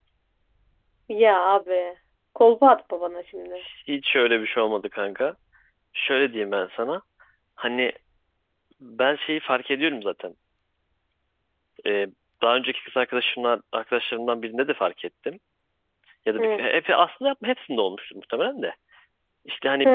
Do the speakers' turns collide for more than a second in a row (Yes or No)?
No